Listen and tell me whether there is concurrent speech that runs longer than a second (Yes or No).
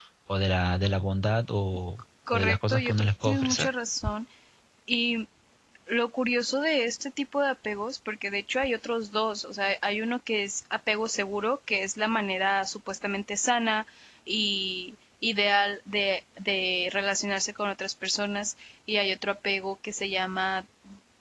Yes